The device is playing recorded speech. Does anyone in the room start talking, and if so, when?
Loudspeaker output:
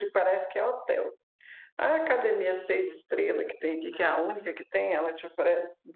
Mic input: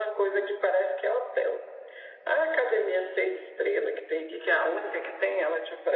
none

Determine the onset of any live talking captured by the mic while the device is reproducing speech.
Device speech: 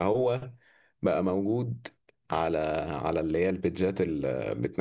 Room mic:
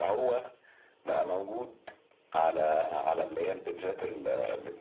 none

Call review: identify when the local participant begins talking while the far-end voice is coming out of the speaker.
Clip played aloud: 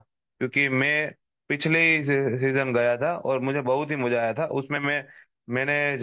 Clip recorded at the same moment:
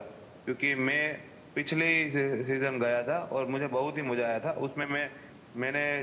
none

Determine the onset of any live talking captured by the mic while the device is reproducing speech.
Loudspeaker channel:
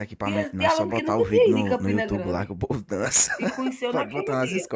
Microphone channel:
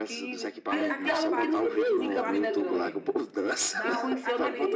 0.7 s

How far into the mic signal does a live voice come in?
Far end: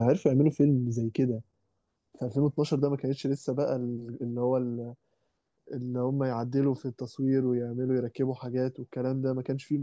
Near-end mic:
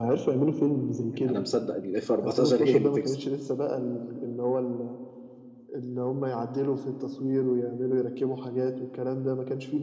1.1 s

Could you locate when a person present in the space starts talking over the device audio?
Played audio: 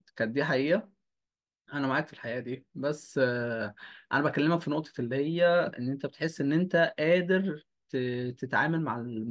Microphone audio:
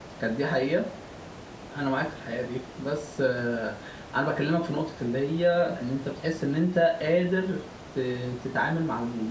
none

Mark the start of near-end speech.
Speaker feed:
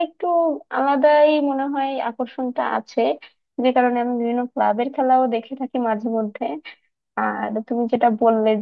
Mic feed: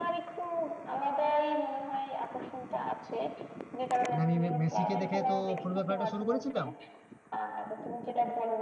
4.1 s

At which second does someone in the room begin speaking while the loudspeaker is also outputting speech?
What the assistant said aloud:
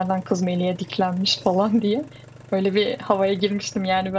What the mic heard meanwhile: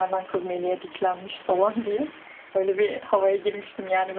none

